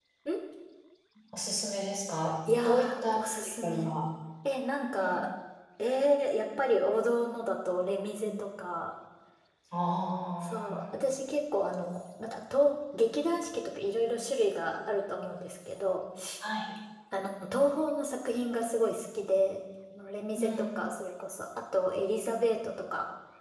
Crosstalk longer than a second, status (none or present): present